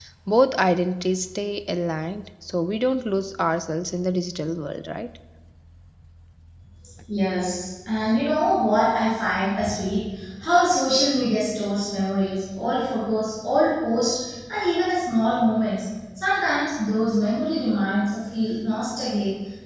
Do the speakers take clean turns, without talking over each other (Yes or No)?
Yes